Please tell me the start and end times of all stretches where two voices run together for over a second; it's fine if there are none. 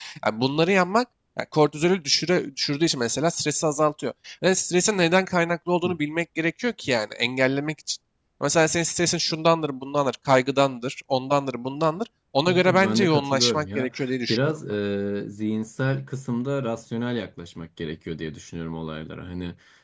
12.5-13.9

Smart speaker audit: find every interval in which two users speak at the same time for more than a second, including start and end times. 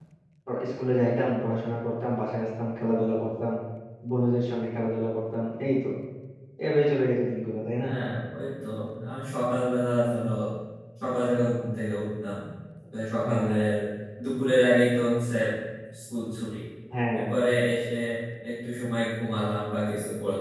none

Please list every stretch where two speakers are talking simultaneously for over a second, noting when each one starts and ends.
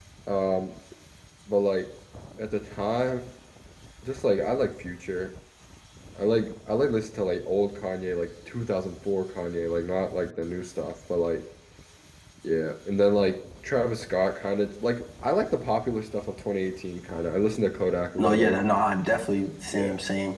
none

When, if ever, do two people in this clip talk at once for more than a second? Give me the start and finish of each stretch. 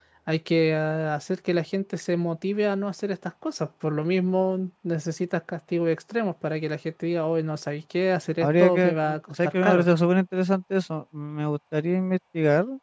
8.4-9.9

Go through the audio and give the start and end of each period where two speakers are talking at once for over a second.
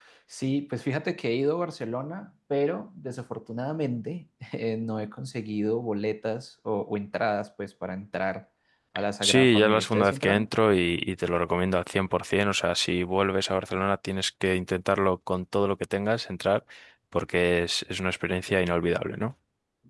9.2-10.5

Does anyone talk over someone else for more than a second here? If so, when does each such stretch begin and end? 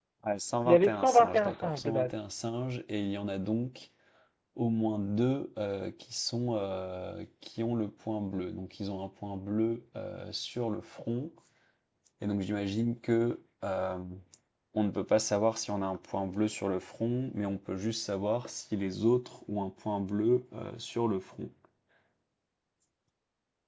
0.7-2.1

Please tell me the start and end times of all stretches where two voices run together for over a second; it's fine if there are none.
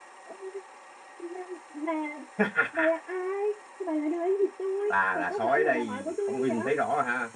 4.9-6.7

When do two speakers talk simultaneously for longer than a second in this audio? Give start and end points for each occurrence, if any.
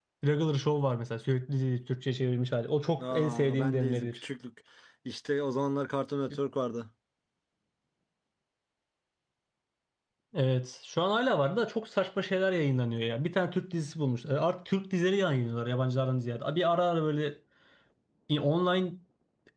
3.0-4.2

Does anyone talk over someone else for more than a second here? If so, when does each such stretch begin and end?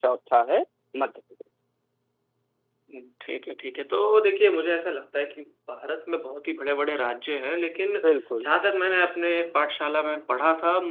none

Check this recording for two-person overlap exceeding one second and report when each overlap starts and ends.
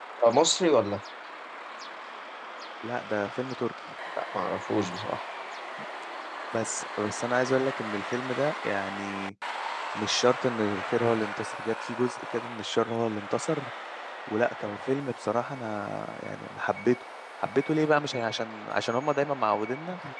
none

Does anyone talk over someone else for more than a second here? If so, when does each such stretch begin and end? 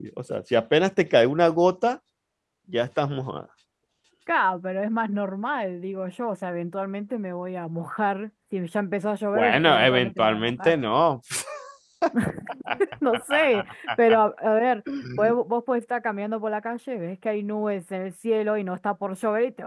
9.4-10.7

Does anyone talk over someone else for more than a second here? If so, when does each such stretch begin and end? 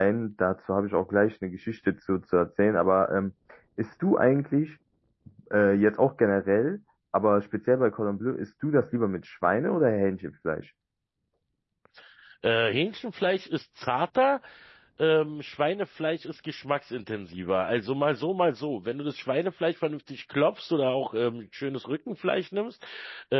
none

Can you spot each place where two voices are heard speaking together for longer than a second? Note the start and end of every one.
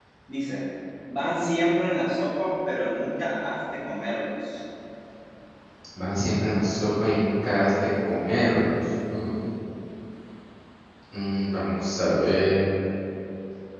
none

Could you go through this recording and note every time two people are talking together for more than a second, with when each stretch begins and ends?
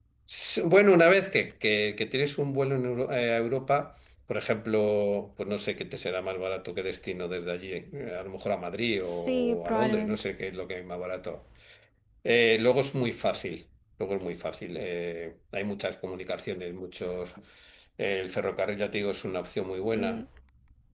9.0-10.2

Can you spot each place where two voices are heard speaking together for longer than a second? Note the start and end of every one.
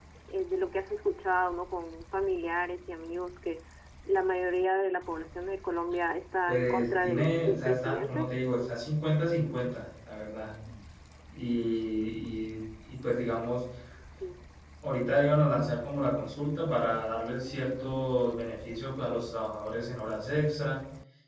6.5-8.3

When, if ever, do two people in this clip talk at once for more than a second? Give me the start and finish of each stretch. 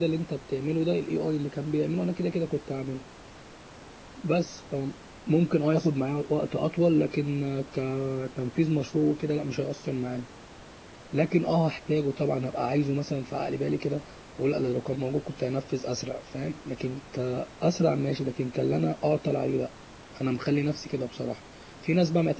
none

